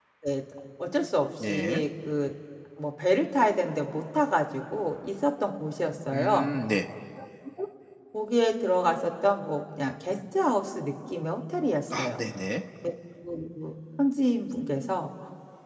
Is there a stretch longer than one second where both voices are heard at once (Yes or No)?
No